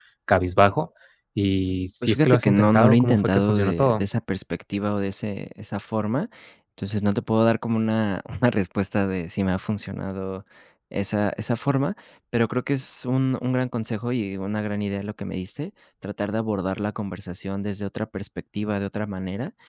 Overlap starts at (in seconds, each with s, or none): 2.0 s